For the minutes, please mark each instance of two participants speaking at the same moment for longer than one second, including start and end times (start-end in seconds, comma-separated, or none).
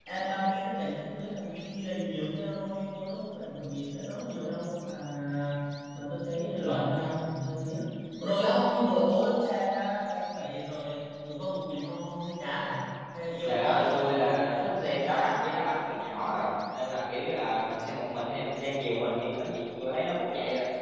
13.4-15.4